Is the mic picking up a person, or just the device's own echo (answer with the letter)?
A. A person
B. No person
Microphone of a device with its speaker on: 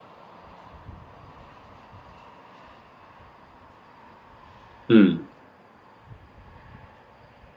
A